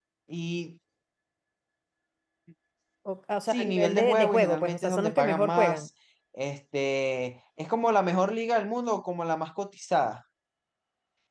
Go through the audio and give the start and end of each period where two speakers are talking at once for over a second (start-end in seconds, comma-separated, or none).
3.5-5.9